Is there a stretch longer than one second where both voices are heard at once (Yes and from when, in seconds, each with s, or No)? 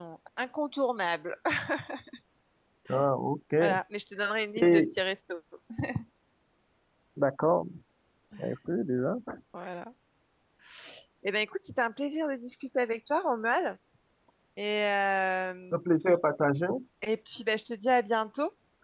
No